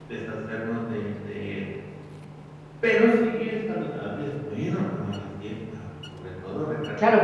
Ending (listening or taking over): taking over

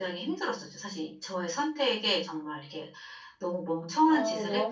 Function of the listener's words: taking over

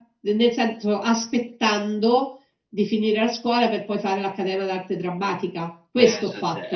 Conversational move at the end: taking over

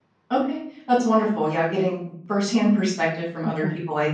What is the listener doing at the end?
listening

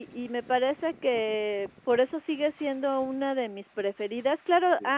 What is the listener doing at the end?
listening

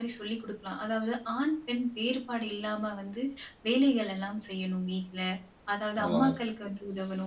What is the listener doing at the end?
listening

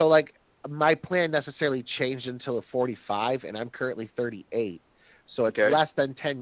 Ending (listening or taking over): listening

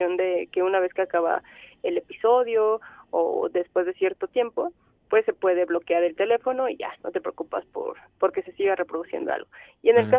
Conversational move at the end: listening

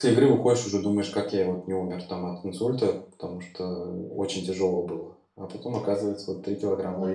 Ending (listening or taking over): taking over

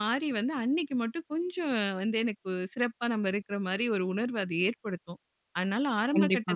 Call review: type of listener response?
listening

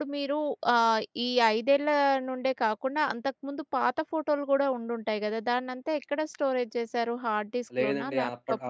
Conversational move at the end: taking over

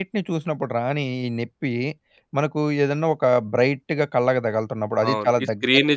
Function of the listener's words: taking over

